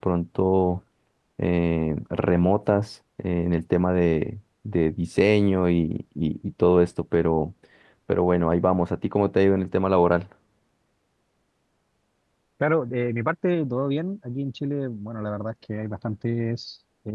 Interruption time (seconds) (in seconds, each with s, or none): none